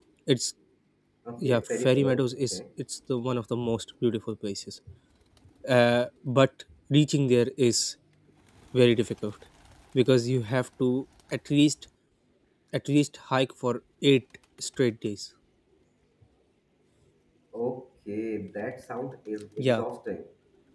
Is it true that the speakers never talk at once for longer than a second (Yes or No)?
No